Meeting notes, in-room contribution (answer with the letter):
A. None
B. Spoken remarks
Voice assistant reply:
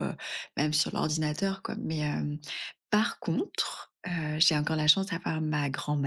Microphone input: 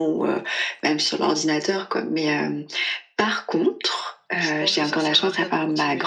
B